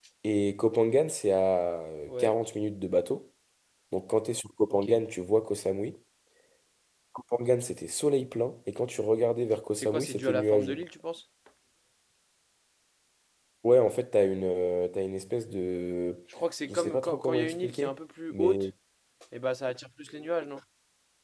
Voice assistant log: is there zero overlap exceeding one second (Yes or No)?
No